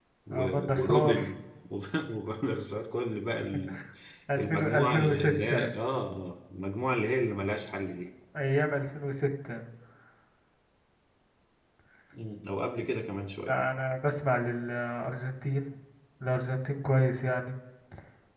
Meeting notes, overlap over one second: present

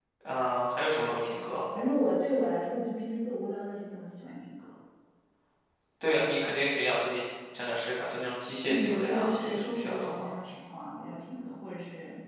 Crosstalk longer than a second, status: present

